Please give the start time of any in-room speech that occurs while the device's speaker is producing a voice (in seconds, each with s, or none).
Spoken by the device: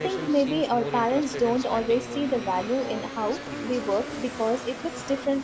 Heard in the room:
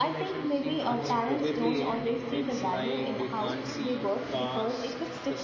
0.8 s